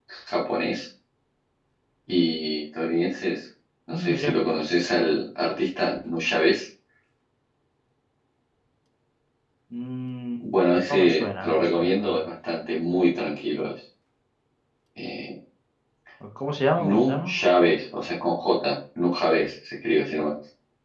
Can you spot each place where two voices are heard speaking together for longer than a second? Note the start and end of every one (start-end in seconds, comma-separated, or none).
10.9-12.2